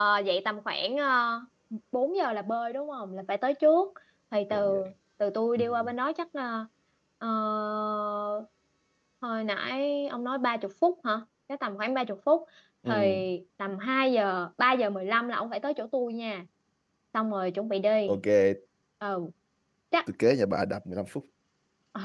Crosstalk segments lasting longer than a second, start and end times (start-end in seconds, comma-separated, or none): none